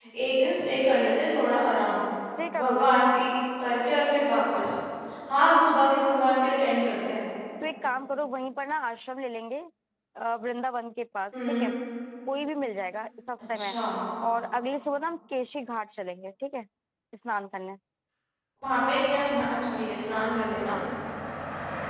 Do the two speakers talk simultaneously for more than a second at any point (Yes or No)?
No